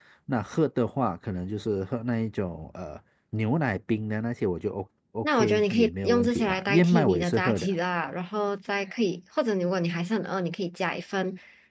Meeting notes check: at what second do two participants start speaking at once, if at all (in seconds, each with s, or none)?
5.2 s